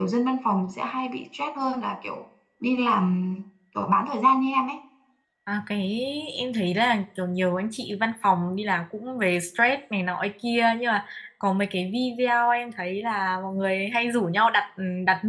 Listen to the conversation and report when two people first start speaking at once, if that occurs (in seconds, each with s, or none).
none